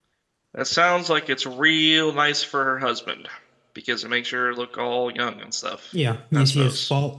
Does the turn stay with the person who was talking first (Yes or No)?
No